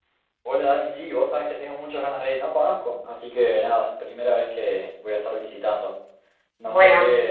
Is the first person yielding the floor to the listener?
No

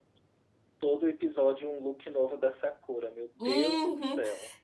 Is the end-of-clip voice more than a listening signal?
Yes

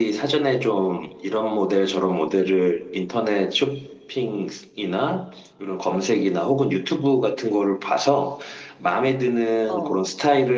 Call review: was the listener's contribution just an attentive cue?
Yes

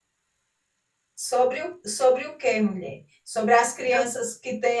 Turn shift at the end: No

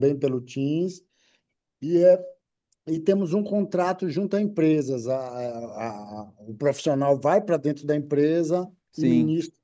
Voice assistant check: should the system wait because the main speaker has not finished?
No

